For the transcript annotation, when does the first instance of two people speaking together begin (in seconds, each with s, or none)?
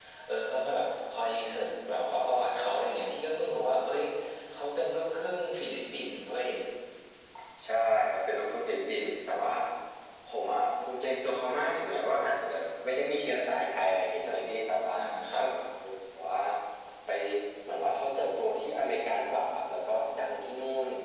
none